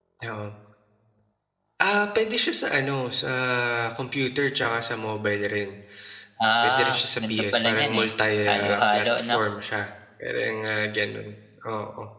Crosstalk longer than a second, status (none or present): present